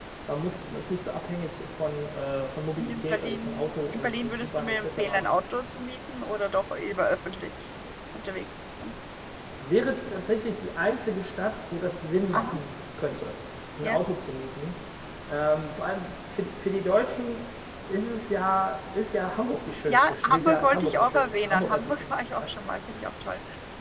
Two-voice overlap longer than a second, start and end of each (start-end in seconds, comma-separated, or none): 2.8-5.2, 19.9-22.5